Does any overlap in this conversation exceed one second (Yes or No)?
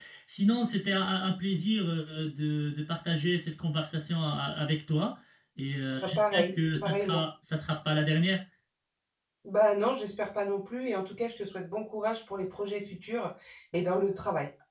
Yes